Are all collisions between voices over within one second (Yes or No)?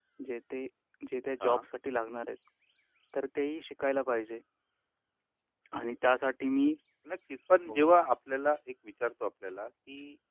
Yes